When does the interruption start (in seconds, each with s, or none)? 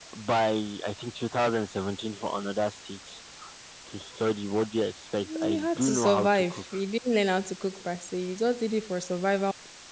5.3 s